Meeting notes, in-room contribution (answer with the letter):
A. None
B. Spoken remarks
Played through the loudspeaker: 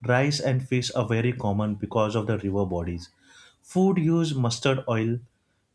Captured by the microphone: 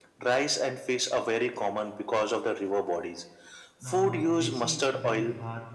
B